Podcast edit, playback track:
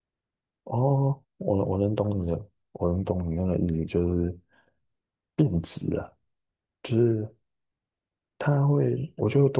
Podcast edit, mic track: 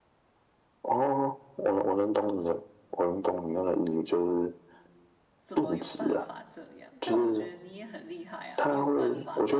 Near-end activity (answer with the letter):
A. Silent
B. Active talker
B